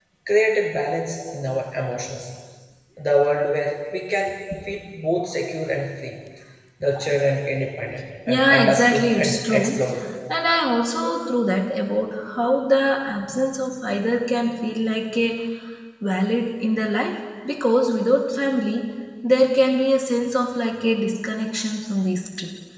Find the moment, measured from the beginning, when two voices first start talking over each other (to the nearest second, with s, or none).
8 s